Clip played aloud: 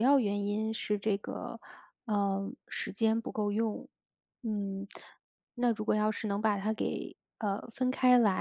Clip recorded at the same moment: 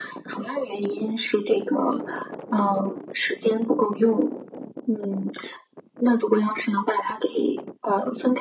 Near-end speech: none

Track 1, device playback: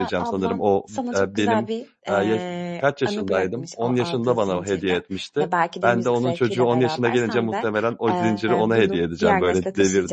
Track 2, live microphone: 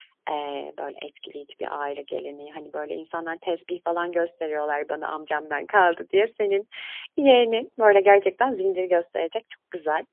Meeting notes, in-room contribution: present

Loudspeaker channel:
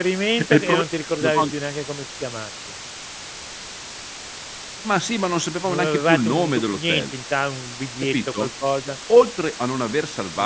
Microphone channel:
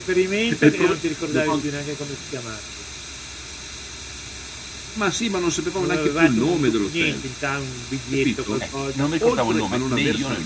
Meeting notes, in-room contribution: present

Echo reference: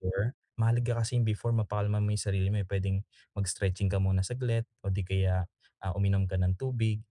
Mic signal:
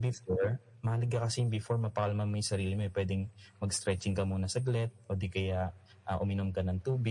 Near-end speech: none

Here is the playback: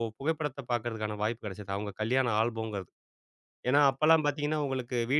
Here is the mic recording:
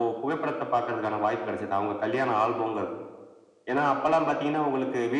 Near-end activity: none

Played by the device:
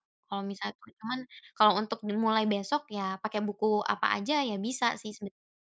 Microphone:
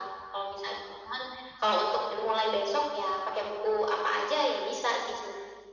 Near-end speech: none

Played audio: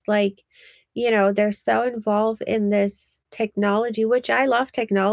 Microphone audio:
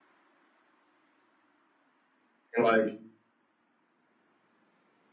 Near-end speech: present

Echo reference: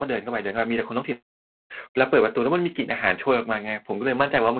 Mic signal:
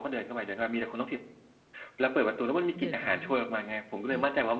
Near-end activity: present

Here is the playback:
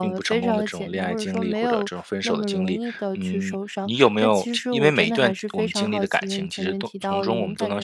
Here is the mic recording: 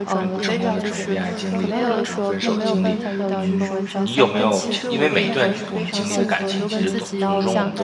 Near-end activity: present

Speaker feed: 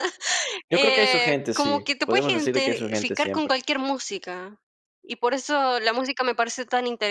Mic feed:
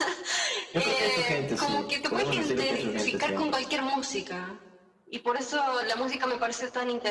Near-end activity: none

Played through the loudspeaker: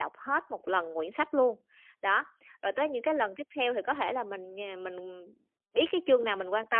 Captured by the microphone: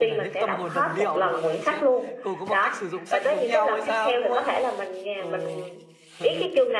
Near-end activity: present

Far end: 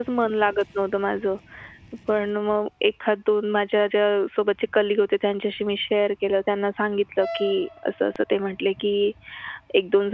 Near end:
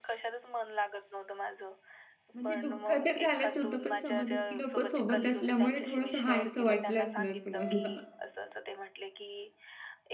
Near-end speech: present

